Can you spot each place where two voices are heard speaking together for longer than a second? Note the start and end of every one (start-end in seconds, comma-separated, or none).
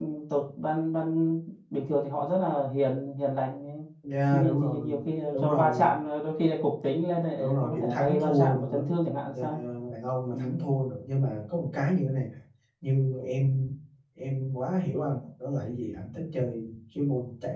4.3-6.0, 7.4-8.8